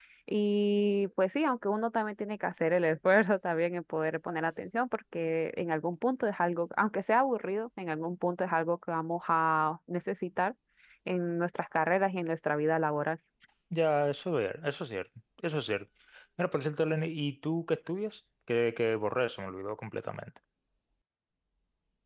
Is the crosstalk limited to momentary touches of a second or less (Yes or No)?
Yes